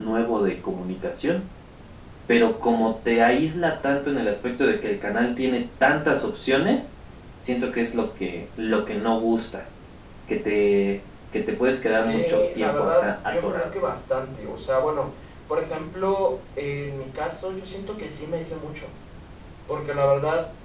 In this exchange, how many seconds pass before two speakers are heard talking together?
12.0 s

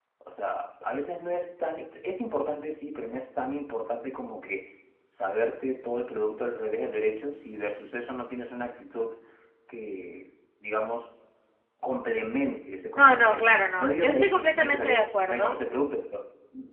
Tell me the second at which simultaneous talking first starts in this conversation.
12.9 s

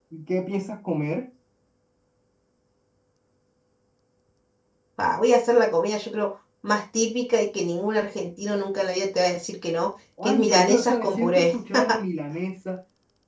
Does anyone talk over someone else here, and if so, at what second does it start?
10.2 s

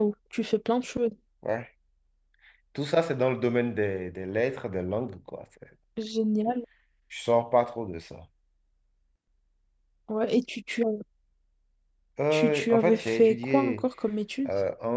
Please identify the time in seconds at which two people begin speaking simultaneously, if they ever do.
12.3 s

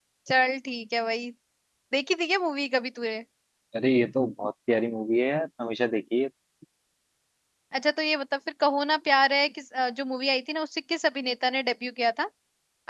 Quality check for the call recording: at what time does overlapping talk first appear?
none

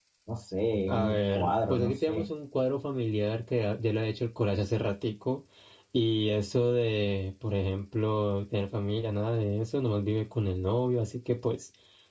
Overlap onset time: 0.9 s

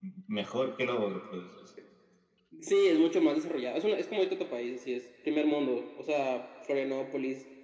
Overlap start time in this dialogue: none

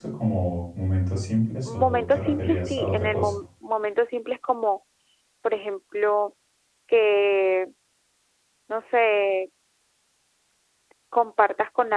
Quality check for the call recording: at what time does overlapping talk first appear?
1.7 s

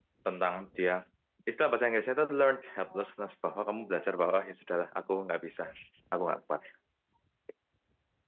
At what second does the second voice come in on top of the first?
none

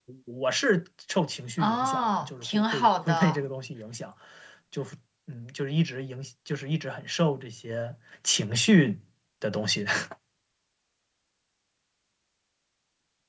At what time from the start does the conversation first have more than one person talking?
1.6 s

